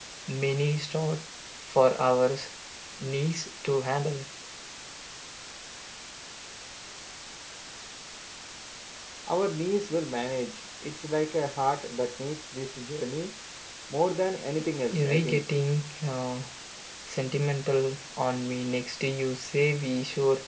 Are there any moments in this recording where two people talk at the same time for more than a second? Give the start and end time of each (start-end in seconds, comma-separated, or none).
none